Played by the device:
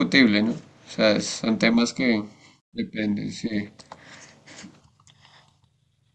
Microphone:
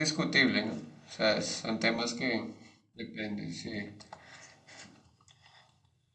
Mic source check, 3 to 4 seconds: echo only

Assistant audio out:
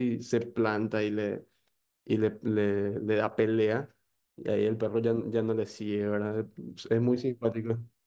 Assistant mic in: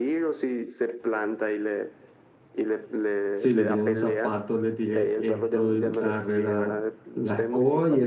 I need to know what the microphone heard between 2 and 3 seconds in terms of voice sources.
echo only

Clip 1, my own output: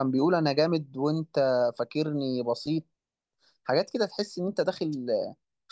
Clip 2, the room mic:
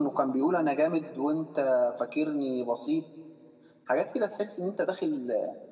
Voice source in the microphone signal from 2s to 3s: echo only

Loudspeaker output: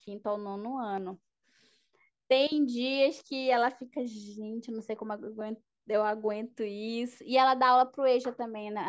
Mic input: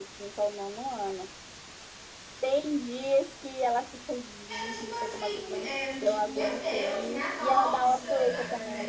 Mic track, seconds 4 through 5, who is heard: both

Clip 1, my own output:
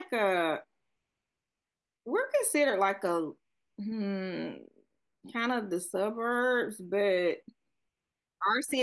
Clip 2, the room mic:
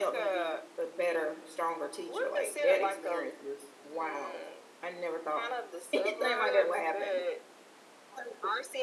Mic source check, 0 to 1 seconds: both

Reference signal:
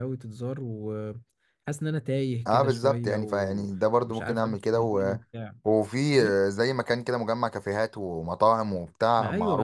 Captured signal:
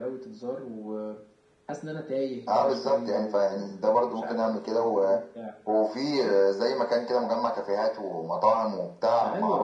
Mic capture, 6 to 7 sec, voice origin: echo only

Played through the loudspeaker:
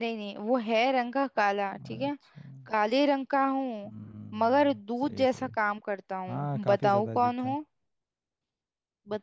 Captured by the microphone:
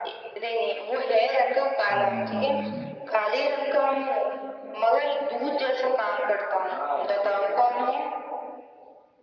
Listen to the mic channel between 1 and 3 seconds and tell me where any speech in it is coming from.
both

